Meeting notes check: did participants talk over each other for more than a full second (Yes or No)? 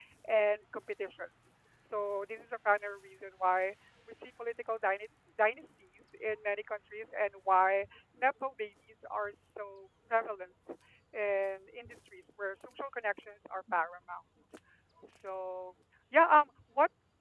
No